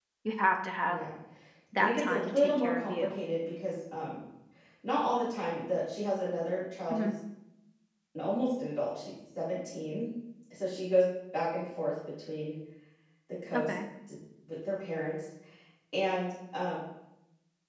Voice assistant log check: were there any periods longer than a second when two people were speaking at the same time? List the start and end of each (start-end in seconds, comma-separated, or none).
1.8-3.2